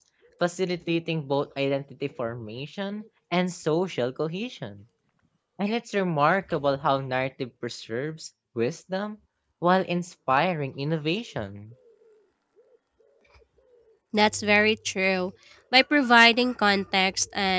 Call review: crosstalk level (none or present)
none